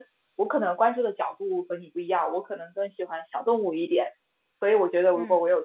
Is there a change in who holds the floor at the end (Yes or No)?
No